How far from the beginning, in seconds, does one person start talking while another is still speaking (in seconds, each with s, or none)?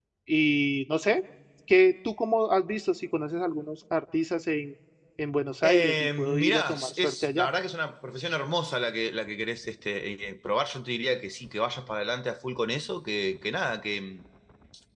5.6 s